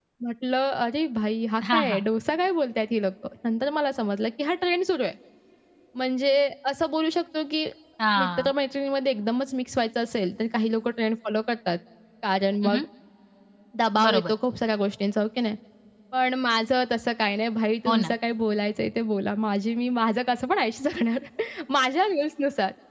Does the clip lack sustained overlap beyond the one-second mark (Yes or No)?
Yes